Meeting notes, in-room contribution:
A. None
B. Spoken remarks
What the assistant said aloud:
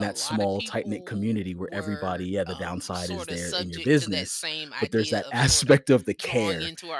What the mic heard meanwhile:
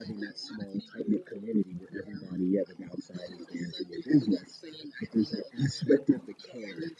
A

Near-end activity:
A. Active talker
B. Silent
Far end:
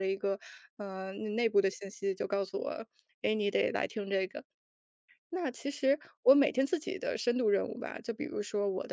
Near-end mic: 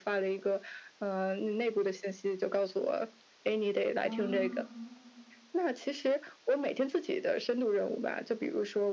A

